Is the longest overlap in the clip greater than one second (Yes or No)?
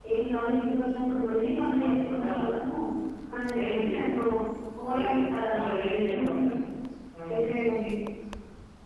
Yes